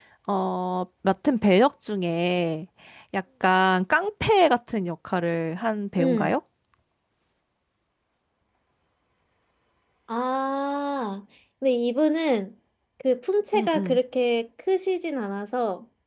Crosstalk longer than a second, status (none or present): none